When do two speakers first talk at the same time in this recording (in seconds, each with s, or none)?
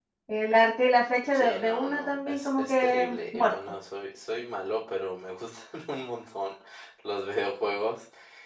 1.3 s